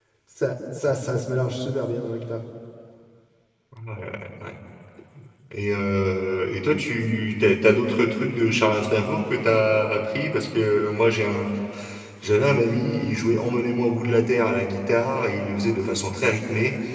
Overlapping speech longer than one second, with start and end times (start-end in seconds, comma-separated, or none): none